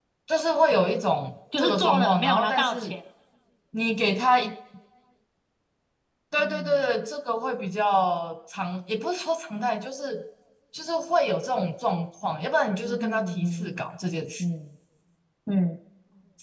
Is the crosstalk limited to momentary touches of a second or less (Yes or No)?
No